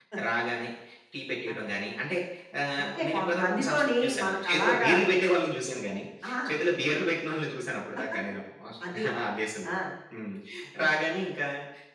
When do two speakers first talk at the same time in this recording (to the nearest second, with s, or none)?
3 s